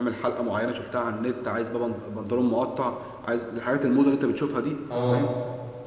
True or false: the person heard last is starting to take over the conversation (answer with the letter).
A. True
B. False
B